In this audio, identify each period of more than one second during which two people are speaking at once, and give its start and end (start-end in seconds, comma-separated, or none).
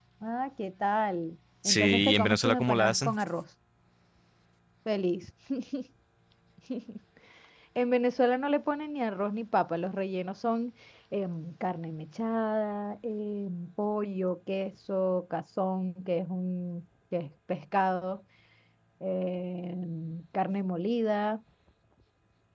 1.6-3.1